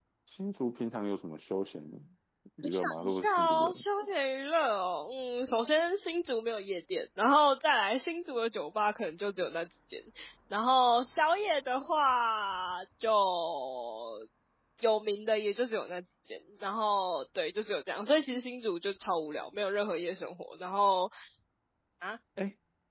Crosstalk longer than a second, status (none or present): present